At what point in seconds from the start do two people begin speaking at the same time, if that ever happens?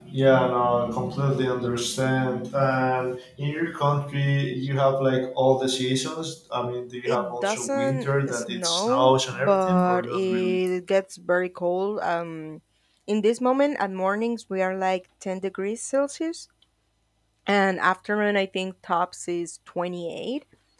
7.0 s

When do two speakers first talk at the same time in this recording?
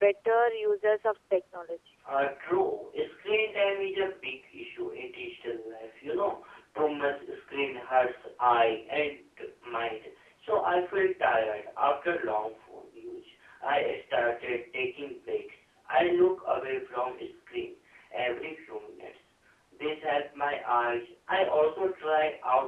none

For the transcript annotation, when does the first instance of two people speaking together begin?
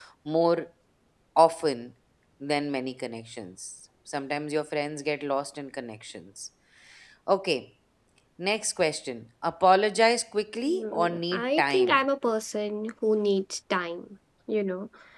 10.7 s

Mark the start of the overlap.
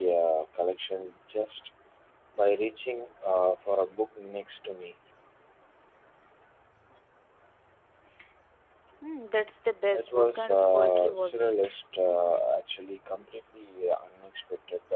9.9 s

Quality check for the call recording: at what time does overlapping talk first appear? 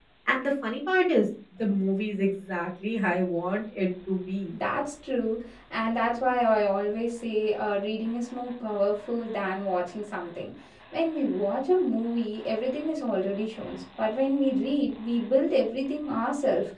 none

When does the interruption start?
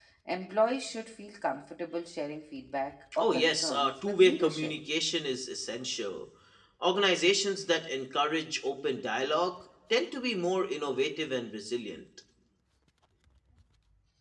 3.1 s

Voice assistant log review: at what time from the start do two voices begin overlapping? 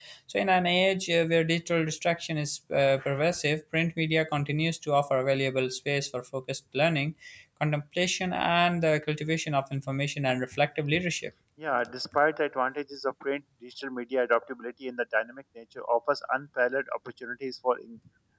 none

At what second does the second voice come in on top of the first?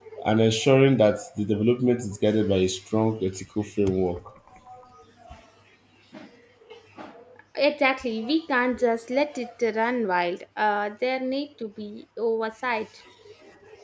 none

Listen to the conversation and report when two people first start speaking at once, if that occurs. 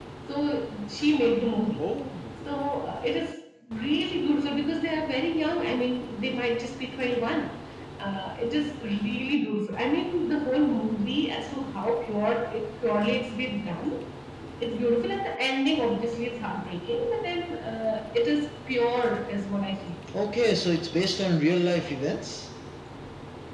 none

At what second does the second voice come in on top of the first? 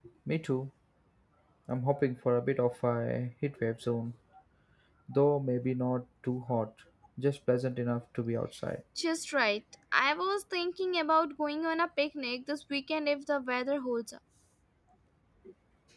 none

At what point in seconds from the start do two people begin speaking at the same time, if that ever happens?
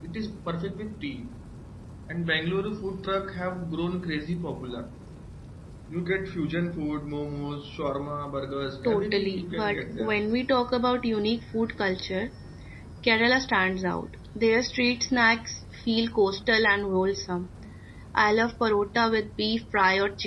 8.8 s

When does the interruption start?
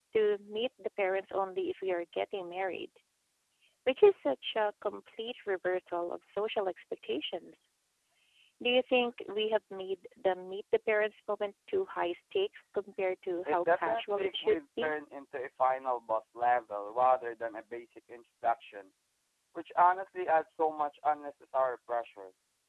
13.4 s

